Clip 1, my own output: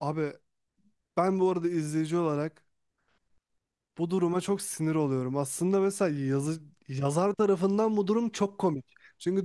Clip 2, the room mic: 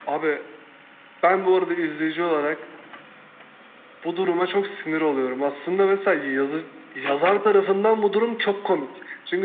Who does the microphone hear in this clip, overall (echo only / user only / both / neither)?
echo only